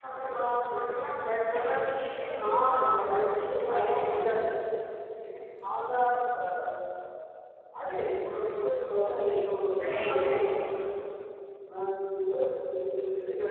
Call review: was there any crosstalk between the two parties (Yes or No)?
Yes